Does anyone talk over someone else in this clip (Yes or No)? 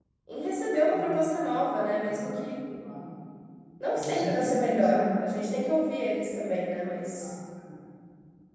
Yes